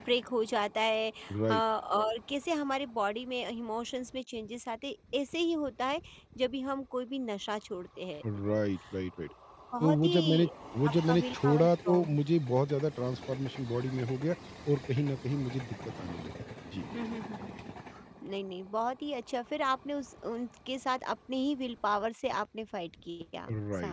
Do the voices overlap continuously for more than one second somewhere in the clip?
Yes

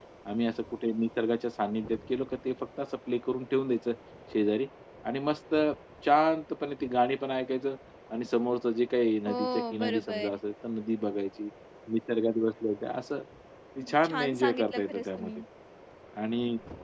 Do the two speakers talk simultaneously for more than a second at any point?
Yes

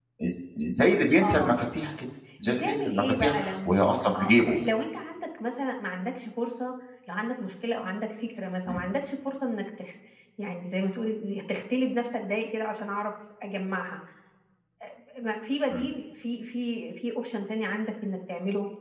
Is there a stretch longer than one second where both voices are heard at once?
Yes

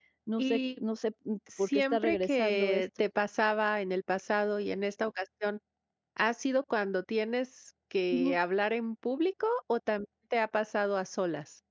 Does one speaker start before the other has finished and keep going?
Yes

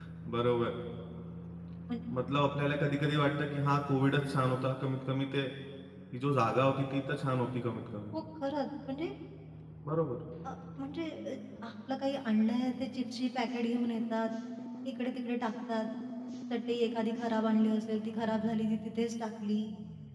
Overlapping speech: No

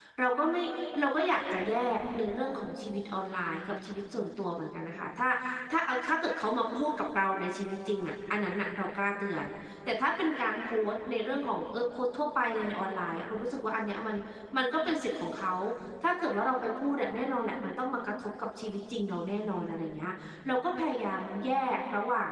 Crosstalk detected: No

